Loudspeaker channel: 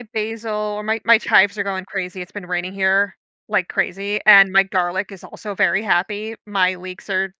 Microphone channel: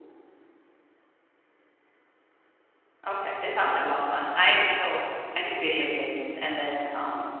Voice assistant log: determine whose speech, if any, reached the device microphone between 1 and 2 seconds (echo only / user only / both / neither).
neither